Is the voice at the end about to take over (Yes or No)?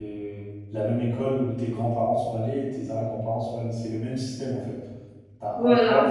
No